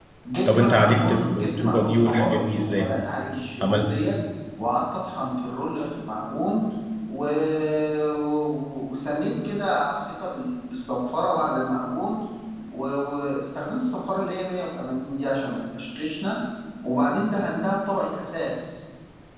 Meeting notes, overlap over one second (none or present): present